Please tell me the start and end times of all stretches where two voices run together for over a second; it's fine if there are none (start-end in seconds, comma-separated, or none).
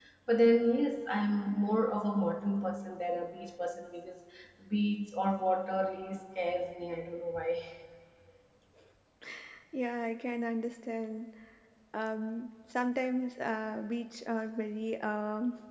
none